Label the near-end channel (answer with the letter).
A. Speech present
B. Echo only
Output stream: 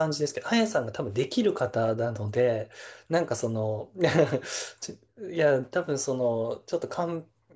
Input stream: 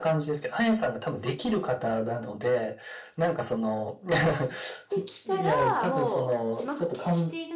A